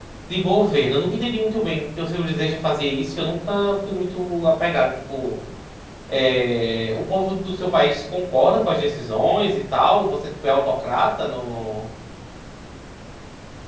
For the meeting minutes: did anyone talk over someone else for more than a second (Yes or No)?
No